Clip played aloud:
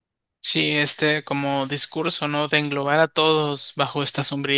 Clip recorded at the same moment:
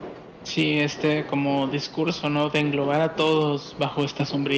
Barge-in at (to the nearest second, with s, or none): none